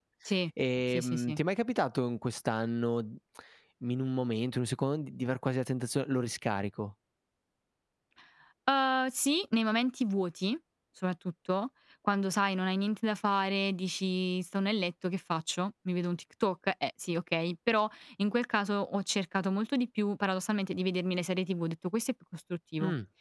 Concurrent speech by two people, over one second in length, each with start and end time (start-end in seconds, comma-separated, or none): none